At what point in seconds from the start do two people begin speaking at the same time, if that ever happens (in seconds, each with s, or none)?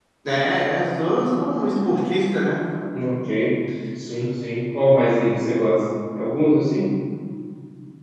none